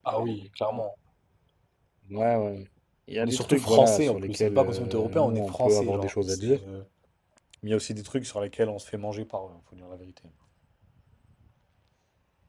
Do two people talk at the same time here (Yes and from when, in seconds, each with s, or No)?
Yes, from 3.2 s